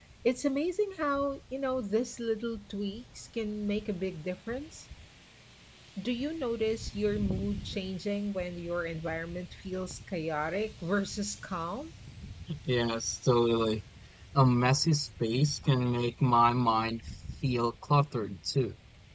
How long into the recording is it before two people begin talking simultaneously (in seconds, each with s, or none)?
none